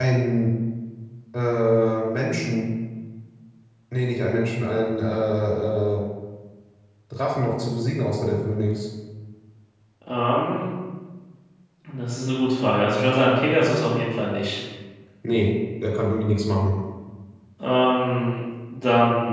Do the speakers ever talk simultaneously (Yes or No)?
No